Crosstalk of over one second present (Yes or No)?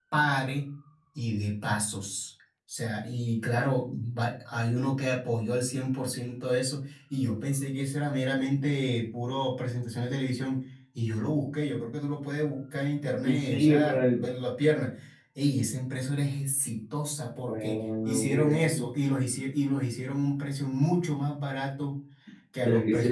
Yes